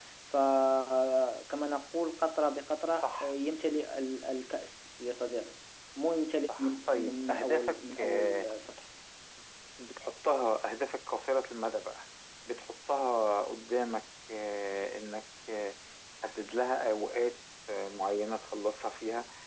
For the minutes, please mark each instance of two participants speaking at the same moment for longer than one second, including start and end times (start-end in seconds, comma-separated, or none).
6.6-8.5